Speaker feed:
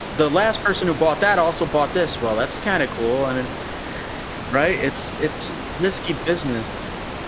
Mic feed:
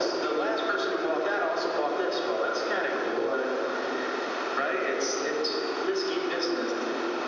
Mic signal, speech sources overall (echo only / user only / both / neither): echo only